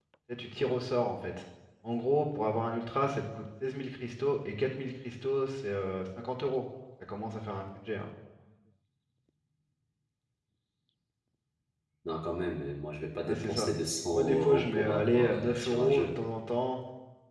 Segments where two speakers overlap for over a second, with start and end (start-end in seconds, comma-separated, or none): 14.1-16.1